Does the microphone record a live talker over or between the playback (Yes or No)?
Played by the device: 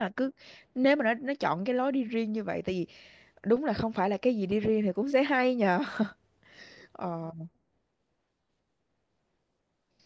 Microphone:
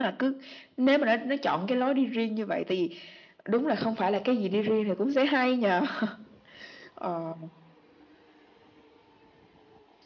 No